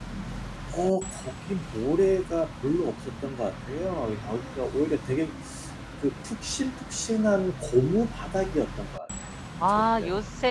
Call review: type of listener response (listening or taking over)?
taking over